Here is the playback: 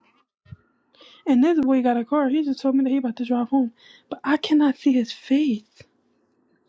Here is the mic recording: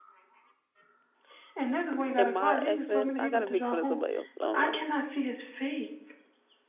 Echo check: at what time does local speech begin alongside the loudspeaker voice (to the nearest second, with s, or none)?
2 s